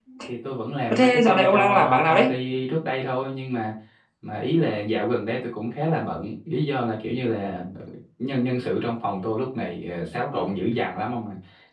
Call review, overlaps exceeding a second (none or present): present